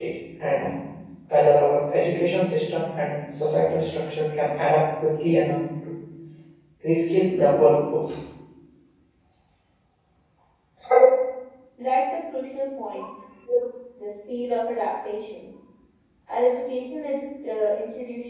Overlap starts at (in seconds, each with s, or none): none